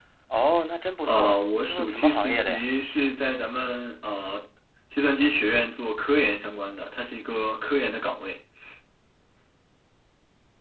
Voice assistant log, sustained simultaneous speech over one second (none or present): present